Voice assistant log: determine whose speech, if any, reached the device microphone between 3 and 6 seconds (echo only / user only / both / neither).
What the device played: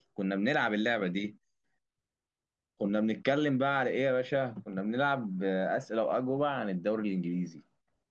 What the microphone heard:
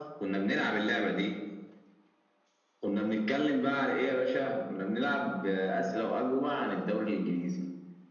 echo only